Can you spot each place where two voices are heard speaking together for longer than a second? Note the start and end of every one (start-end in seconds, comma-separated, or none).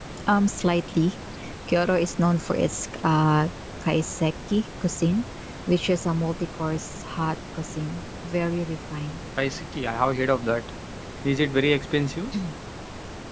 none